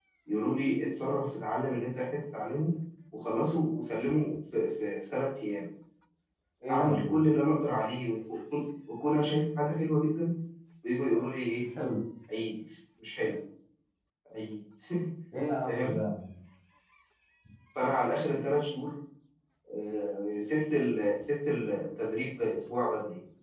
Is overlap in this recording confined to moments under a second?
Yes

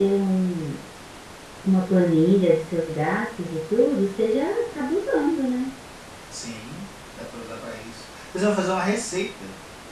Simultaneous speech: No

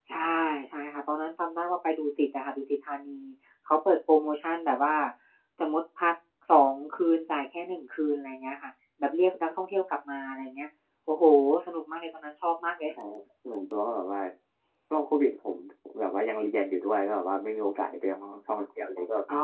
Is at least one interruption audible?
No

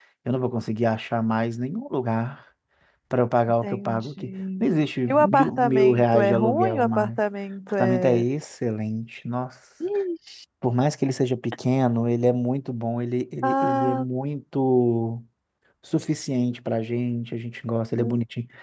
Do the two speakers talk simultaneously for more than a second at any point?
Yes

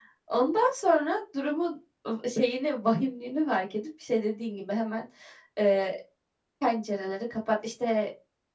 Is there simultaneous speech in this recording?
No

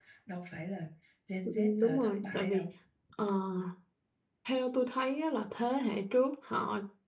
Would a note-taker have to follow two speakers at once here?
Yes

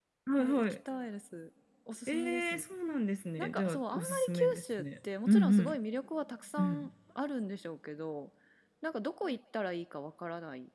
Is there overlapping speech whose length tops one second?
Yes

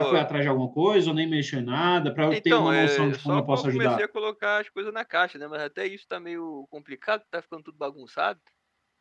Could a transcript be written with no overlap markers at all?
No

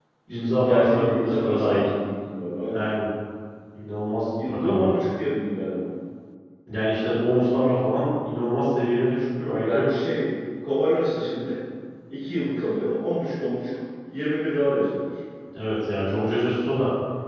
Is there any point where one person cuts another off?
Yes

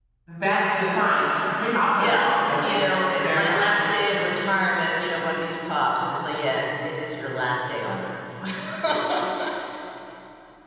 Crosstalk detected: Yes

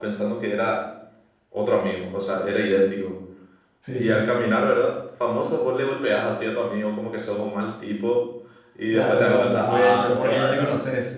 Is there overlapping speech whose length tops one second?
Yes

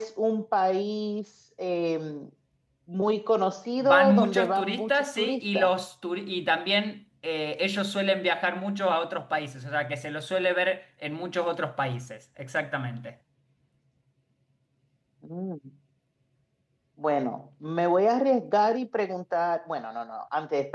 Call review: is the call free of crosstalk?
No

